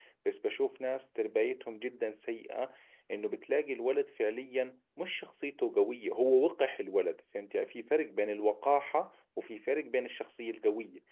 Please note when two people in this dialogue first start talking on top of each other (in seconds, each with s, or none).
none